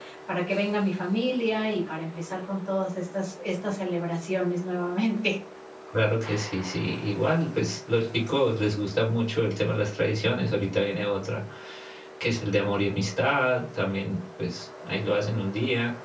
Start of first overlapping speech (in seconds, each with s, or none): none